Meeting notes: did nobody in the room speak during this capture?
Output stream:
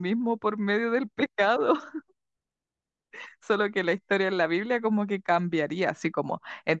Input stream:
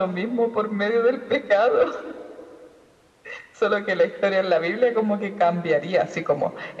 Yes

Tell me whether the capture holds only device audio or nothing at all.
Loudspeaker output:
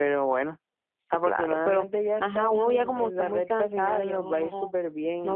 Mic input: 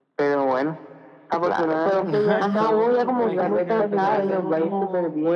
No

